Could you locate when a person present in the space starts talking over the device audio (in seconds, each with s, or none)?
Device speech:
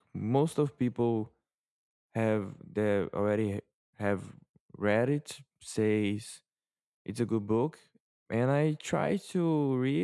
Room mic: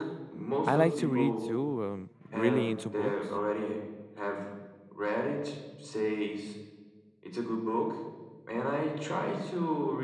0.7 s